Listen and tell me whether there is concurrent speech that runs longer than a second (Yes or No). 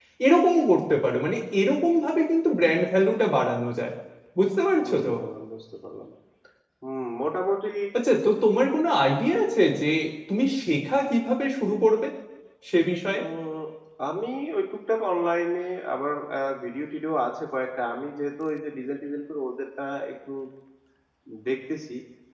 No